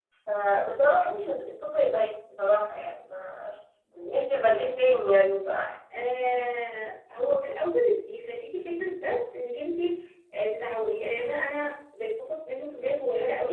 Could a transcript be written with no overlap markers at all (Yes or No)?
Yes